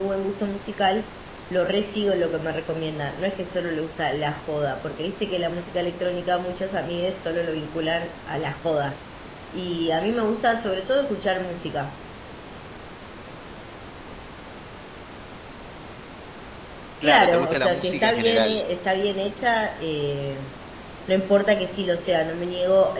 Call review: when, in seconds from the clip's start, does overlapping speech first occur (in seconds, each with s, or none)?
17.0 s